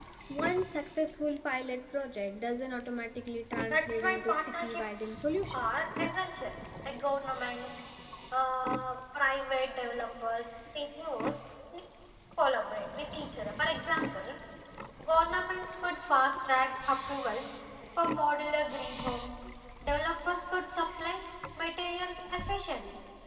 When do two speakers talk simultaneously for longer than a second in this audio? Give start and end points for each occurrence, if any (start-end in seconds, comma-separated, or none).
3.6-5.6